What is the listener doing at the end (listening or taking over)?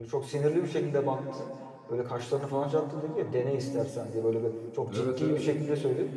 listening